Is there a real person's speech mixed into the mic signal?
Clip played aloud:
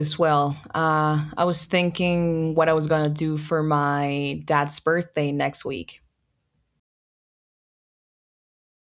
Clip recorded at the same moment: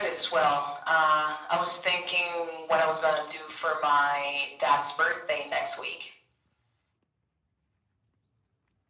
No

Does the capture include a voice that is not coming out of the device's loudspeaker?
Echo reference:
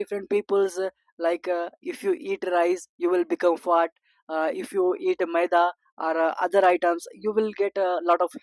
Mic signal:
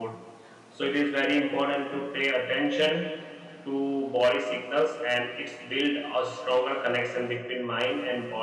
Yes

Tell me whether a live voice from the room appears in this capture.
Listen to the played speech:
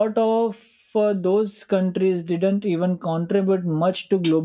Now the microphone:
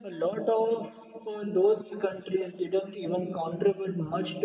No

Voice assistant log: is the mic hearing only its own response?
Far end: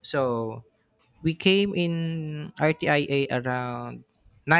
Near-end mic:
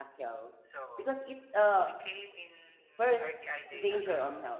No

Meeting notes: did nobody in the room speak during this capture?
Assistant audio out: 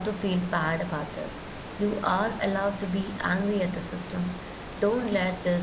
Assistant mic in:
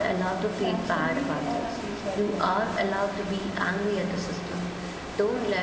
No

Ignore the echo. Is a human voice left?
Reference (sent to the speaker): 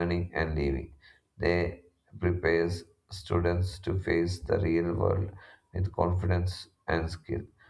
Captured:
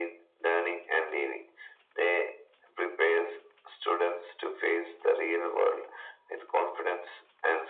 No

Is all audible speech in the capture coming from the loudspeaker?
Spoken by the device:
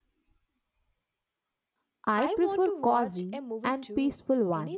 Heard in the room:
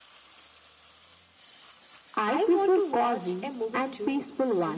Yes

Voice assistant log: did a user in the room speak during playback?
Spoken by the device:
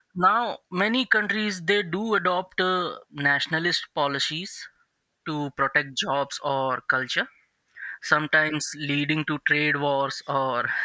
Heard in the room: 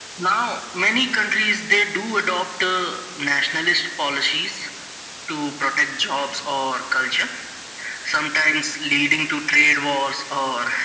No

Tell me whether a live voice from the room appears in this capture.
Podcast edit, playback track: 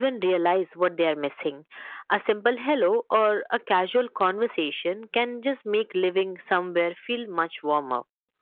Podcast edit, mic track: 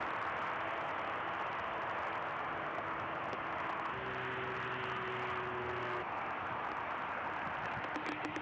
No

